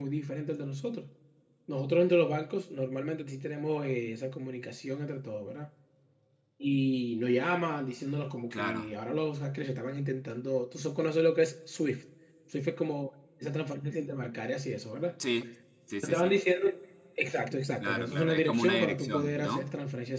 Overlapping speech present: Yes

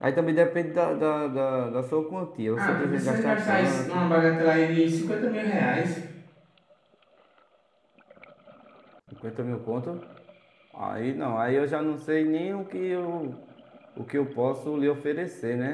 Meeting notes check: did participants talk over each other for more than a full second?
Yes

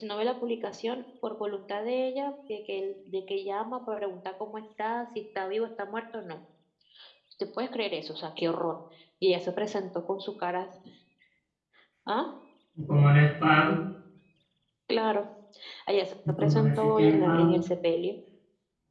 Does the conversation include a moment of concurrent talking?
Yes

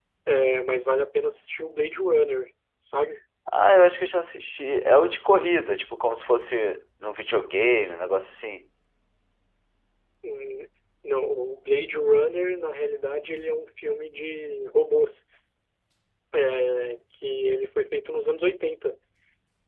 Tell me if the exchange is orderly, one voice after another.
Yes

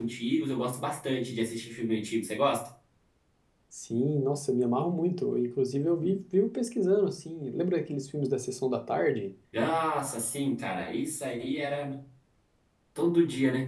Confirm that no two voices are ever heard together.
Yes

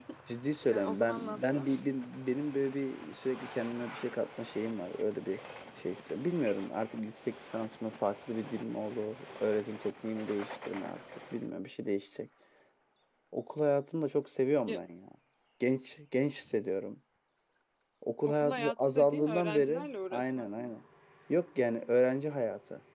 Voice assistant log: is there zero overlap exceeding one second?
No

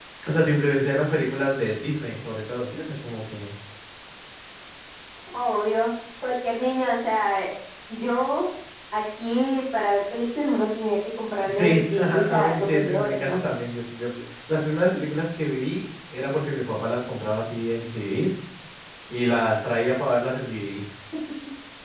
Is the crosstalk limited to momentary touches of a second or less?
No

